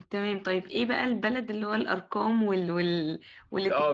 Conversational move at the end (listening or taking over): taking over